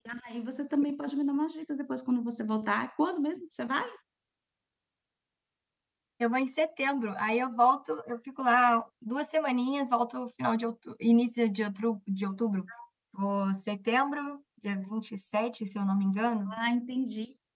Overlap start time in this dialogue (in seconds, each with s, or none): none